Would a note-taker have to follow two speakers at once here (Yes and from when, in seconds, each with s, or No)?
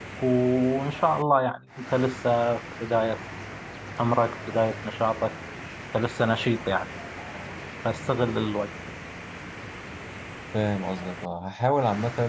No